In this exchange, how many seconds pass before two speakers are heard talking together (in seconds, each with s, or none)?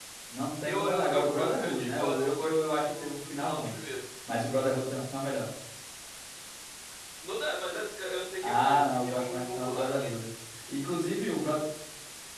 0.7 s